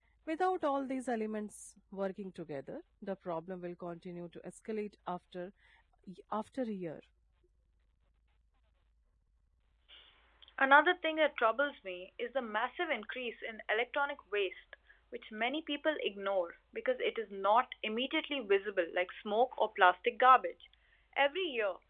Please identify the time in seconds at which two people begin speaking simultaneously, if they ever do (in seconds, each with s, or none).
none